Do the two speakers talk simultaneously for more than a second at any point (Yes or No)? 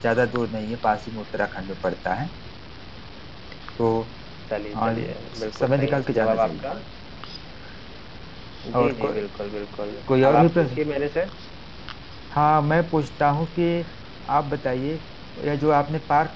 Yes